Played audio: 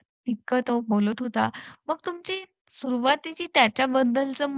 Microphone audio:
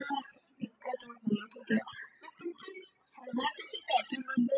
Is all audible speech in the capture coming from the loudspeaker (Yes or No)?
Yes